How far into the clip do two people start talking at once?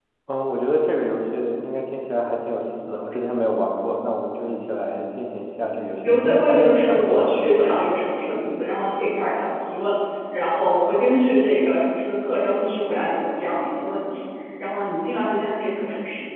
6.0 s

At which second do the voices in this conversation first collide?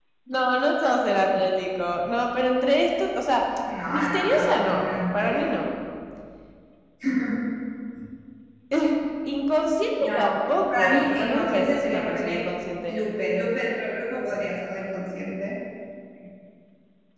3.9 s

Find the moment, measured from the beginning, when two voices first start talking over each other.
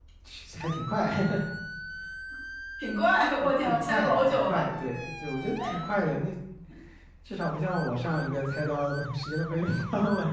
3.4 s

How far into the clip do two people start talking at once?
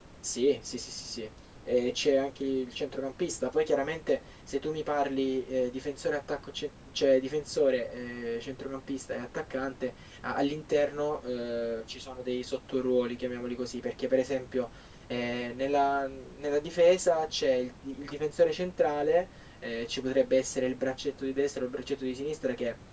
none

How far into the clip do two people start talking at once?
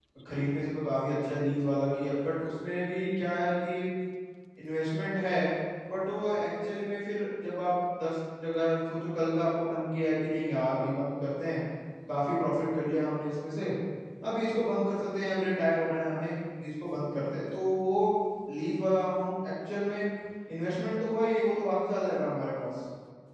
none

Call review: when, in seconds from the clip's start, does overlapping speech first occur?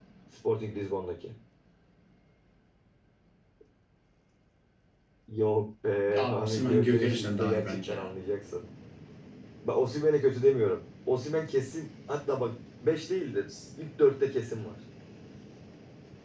6.1 s

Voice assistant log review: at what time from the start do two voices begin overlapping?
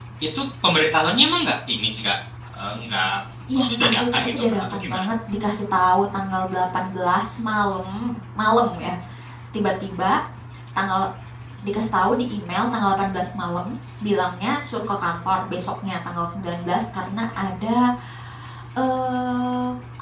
3.6 s

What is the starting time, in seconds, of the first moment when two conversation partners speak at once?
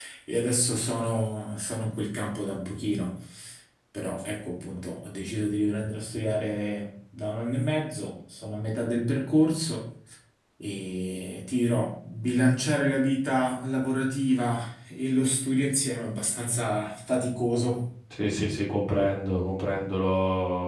none

